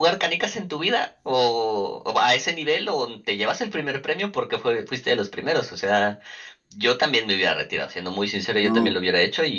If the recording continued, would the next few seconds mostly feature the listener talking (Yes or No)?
No